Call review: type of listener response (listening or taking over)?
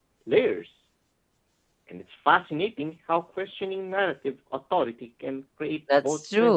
taking over